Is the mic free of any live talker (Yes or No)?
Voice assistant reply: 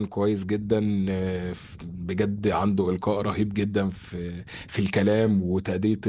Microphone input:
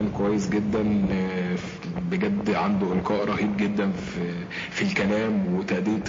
Yes